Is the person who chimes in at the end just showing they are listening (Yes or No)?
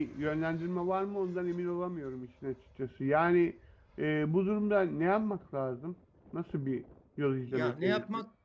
No